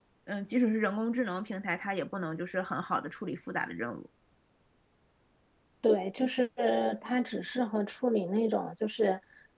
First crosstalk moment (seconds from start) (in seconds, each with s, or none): none